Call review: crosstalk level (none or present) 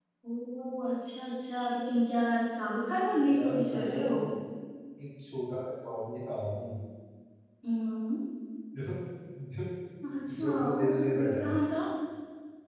present